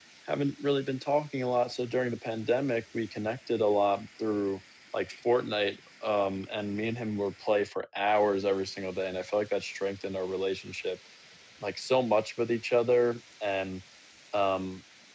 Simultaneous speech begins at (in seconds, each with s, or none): none